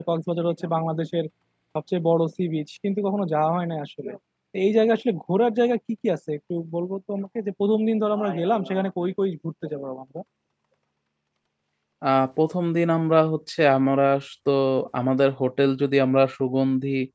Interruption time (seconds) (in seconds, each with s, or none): none